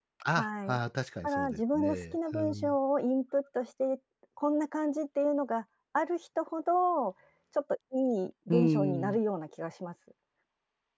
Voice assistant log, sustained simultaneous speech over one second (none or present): present